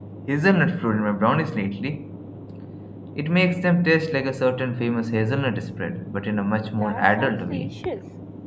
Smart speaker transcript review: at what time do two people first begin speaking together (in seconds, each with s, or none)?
6.5 s